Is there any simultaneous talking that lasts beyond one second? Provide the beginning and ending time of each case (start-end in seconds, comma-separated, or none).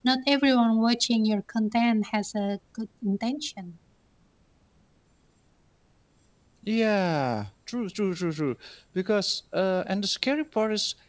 none